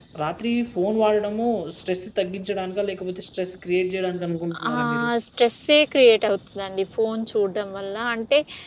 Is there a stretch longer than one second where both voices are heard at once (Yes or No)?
No